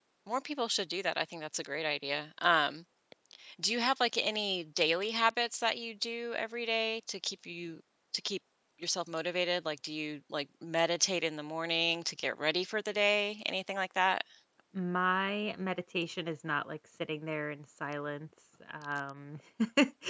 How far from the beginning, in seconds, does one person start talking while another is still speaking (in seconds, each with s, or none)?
none